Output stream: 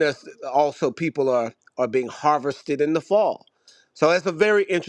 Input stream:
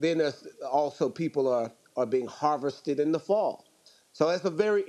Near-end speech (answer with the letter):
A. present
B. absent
B